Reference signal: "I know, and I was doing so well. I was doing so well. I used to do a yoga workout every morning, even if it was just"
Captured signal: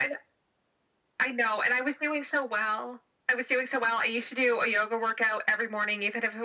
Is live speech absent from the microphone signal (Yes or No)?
Yes